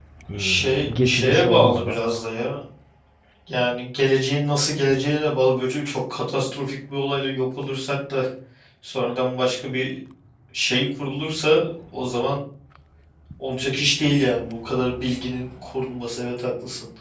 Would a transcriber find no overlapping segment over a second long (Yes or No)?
No